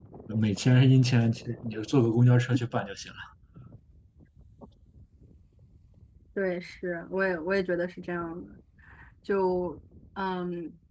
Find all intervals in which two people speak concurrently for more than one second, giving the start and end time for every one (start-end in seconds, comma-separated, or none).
none